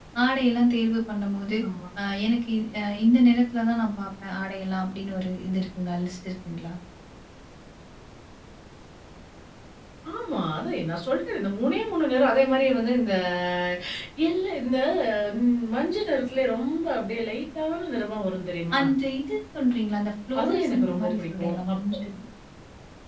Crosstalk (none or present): present